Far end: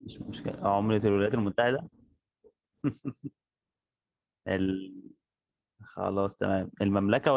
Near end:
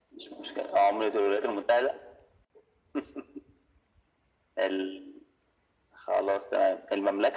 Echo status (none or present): present